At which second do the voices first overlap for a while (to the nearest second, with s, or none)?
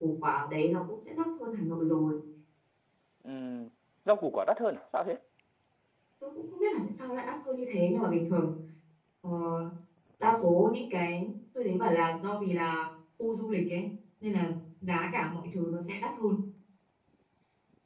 none